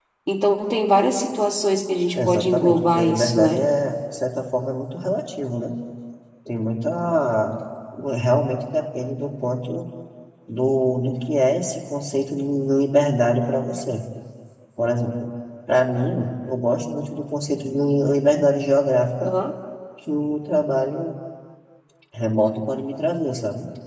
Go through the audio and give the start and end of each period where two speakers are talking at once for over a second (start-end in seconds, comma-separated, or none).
2.3-3.6